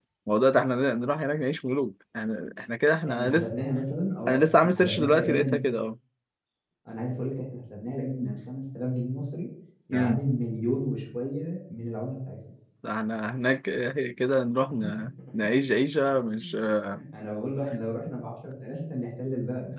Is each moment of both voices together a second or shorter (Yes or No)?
No